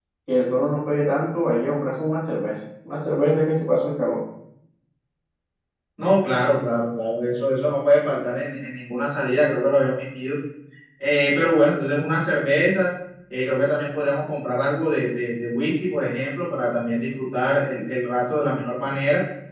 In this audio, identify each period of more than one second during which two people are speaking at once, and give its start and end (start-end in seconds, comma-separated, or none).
none